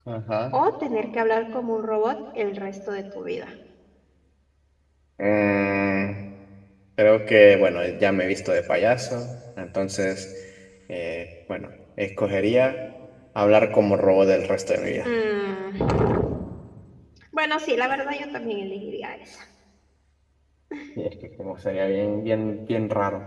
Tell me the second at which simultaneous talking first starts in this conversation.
none

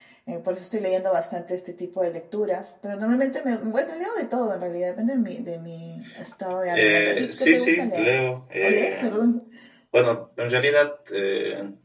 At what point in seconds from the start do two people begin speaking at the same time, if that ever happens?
6.7 s

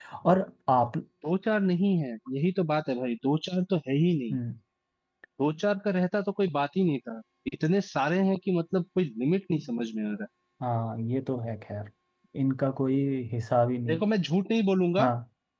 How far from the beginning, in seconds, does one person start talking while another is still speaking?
none

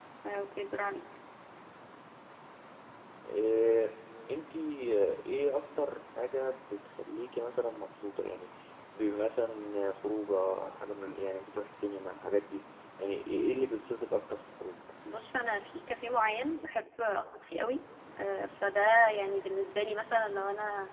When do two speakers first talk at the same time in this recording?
none

